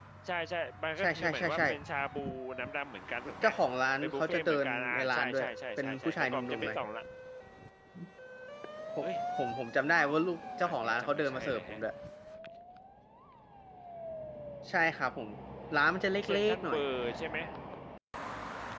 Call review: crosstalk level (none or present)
present